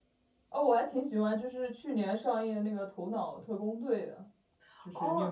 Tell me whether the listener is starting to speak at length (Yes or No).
Yes